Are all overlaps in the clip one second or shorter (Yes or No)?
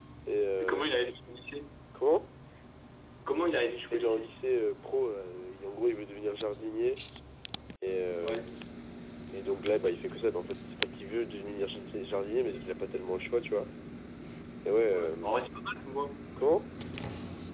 Yes